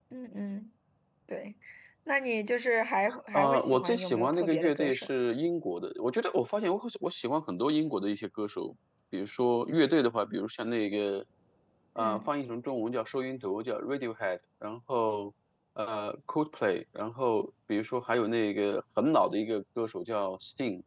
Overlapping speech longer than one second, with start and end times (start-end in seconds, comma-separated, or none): 3.3-5.1